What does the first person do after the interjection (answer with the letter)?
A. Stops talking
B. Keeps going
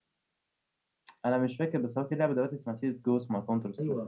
A